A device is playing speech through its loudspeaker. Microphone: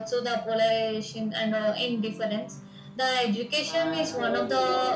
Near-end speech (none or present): present